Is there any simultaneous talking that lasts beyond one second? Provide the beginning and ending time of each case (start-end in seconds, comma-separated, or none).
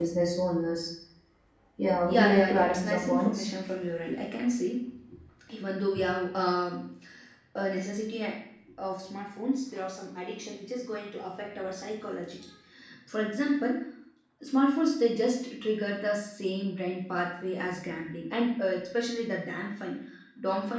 2.0-3.4